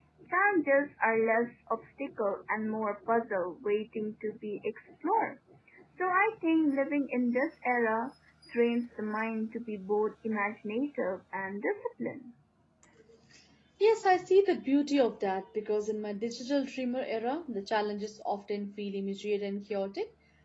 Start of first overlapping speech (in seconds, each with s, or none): none